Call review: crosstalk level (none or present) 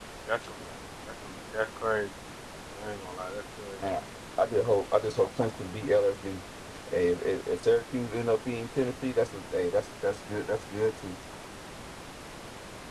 none